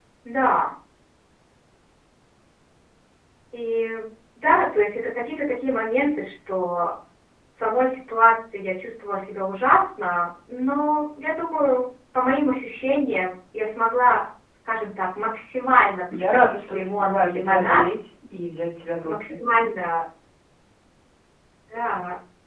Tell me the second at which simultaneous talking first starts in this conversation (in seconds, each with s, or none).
16.3 s